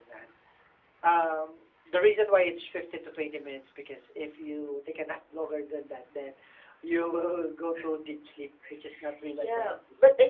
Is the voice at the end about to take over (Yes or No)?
Yes